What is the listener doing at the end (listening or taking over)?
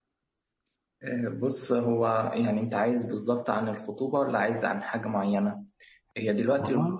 listening